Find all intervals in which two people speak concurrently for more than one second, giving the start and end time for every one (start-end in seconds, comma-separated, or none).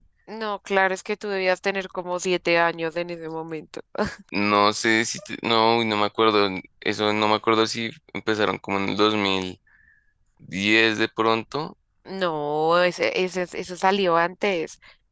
none